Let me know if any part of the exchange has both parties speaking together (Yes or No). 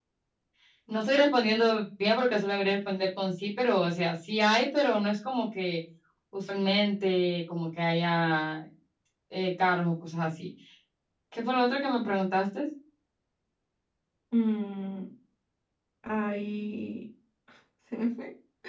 No